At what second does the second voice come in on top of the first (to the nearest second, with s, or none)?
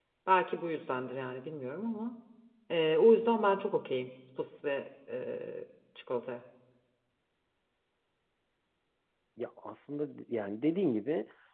none